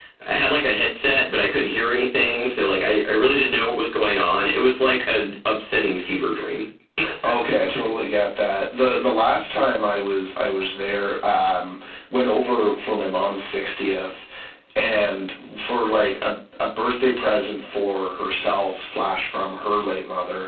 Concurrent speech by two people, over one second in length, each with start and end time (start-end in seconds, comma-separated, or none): none